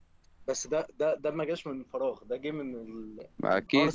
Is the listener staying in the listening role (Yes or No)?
No